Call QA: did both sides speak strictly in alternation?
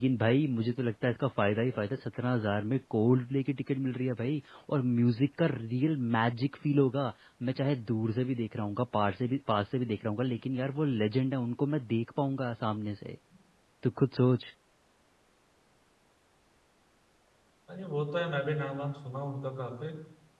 Yes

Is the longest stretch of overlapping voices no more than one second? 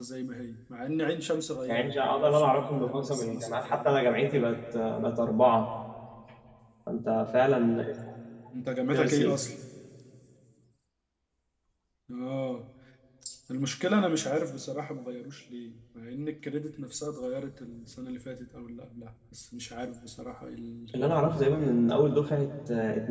No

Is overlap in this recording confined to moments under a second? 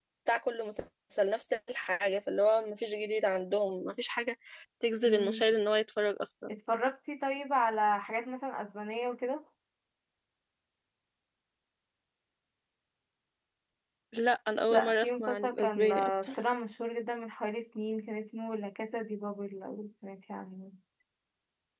No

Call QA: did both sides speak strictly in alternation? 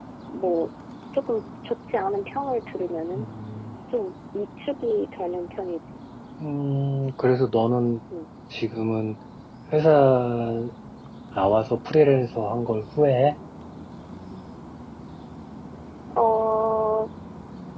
Yes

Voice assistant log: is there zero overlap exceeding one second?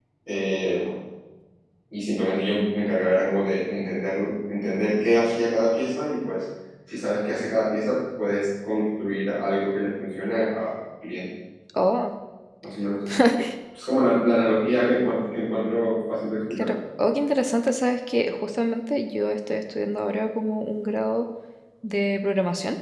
Yes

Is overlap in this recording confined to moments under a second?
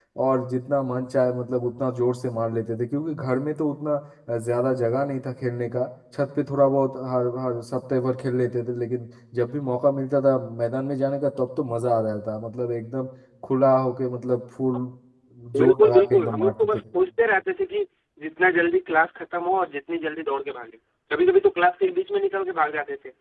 No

